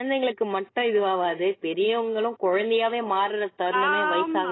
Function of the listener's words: taking over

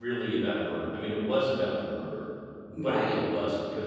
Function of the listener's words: listening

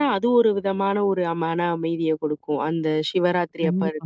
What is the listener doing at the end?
listening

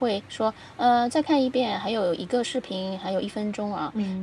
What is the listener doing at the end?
listening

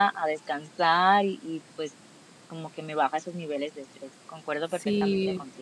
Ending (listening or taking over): taking over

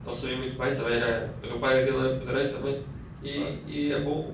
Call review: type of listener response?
listening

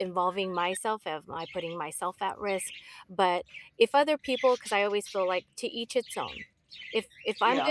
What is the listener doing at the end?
taking over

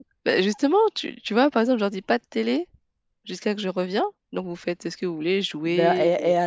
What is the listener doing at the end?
taking over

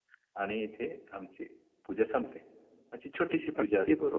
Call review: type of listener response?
listening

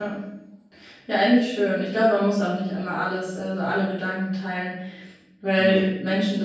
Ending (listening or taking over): listening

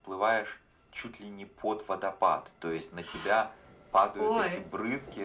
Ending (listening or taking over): listening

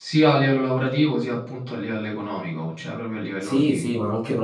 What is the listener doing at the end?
taking over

